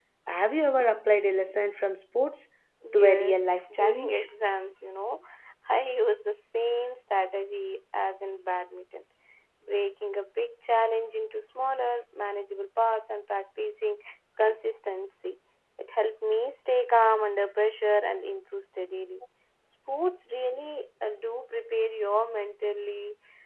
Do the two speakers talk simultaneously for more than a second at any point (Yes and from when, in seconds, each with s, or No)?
Yes, from 2.8 s